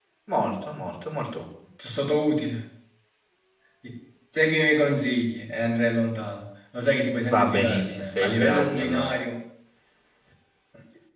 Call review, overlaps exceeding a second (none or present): present